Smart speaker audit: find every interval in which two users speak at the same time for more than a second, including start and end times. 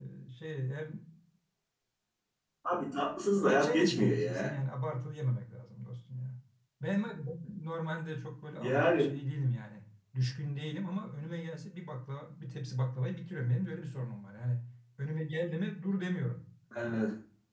3.4-4.6

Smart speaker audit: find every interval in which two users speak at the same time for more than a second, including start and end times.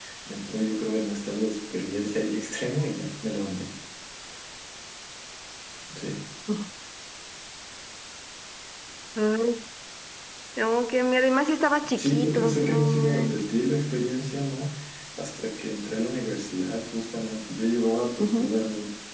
12.0-13.4

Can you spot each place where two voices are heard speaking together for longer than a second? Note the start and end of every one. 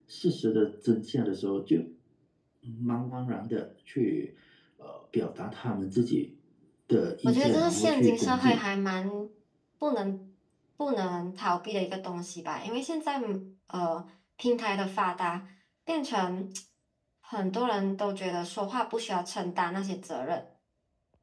7.2-8.6

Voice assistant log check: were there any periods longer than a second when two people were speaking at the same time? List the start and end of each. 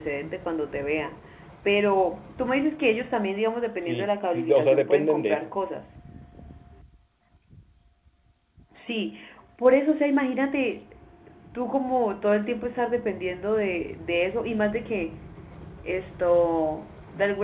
3.8-5.5

